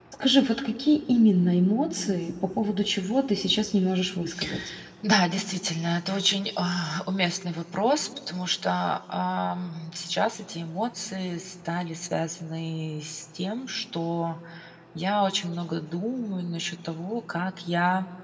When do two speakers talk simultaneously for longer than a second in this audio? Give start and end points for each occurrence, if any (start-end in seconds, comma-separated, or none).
none